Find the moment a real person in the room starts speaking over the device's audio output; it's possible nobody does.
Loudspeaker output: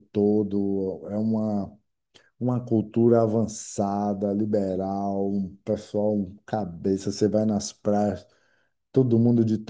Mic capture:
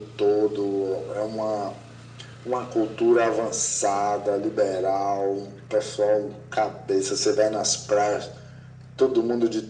none

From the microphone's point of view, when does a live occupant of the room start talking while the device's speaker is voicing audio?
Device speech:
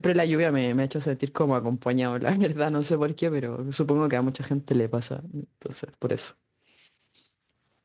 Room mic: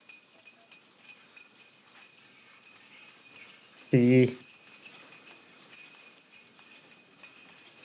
4 s

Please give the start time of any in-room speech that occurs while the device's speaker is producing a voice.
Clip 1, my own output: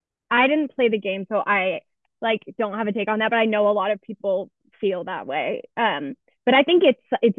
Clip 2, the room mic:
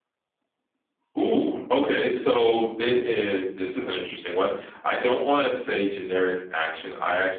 1 s

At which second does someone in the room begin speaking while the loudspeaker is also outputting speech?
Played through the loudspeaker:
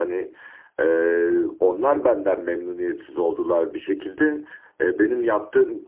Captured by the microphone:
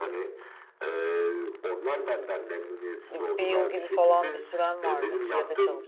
3 s

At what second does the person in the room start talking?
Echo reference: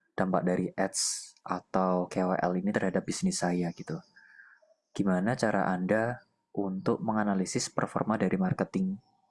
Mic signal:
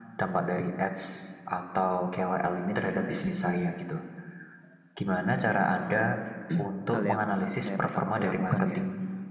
6 s

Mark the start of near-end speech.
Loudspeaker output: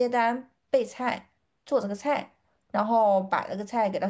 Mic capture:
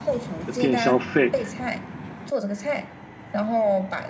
0 s

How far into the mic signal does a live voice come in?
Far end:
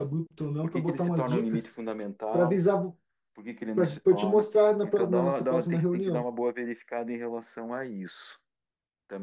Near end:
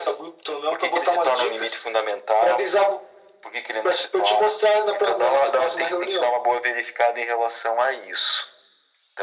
none

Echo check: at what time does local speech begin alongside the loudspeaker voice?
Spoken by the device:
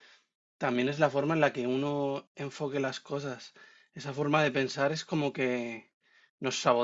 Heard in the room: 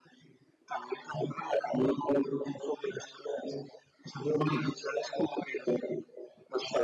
none

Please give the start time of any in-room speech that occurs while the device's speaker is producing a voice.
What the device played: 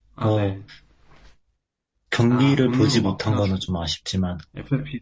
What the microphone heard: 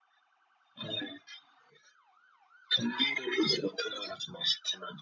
none

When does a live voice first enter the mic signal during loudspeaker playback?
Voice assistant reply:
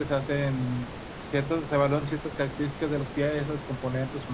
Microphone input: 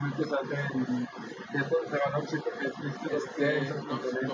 3 s

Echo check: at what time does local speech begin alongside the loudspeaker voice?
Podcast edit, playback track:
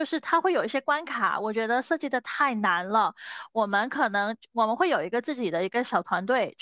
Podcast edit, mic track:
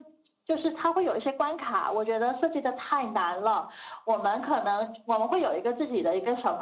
none

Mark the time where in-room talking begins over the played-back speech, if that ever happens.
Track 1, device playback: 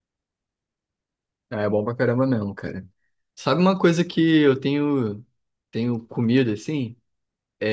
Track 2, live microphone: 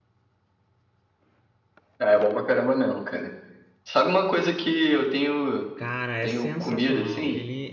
6 s

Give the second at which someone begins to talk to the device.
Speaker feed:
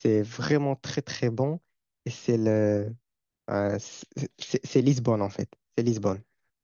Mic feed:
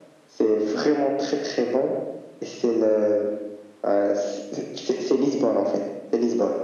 none

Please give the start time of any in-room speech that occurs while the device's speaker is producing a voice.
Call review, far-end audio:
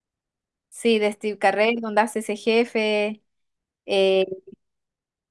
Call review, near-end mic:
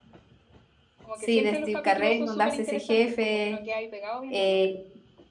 1 s

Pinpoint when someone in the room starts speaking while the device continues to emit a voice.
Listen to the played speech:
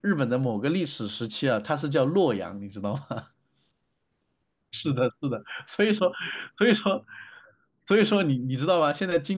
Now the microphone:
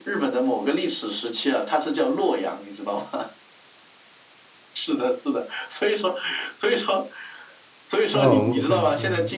8 s

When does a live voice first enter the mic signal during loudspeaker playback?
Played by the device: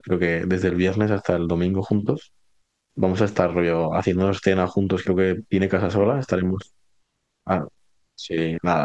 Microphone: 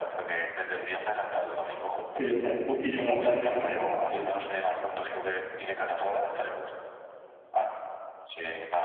2 s

